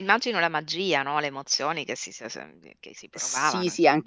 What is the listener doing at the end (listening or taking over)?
taking over